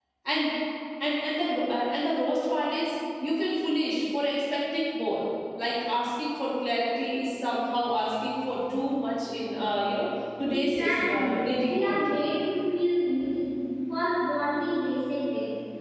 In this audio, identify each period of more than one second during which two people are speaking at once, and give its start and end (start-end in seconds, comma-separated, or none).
10.5-12.0